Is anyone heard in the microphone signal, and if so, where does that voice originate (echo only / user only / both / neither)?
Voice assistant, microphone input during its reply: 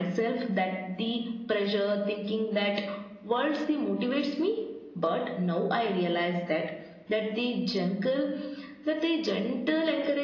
echo only